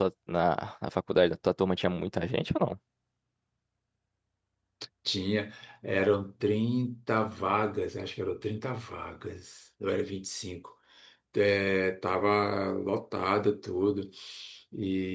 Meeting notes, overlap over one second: none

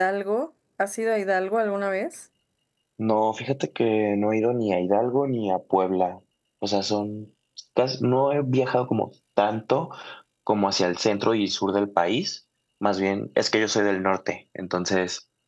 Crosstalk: none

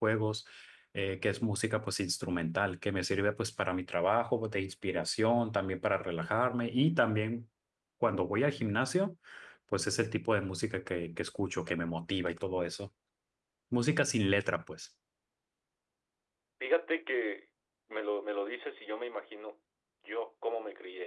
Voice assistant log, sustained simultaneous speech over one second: none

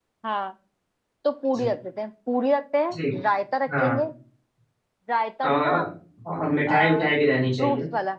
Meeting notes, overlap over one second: none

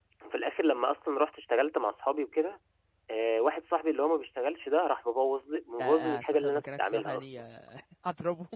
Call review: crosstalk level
present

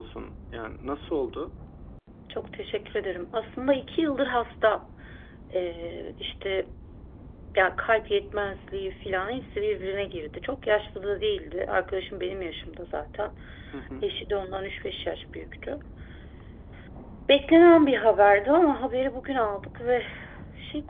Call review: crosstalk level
none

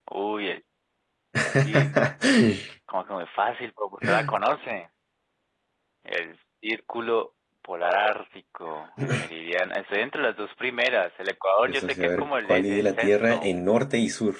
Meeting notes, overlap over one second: present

